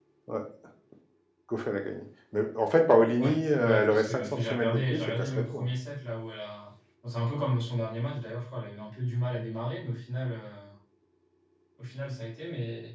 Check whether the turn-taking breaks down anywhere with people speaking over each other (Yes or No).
Yes